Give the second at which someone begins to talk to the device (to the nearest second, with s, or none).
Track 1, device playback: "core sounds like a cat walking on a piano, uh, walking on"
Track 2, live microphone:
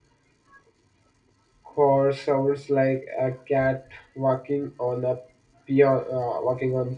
none